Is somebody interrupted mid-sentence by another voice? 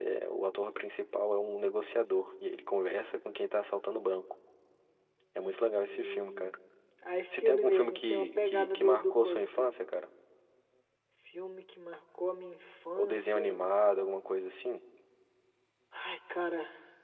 Yes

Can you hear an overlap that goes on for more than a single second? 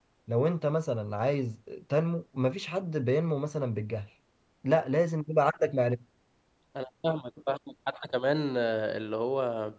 No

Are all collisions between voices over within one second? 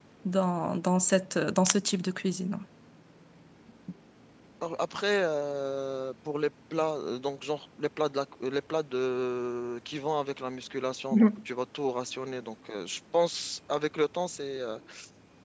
Yes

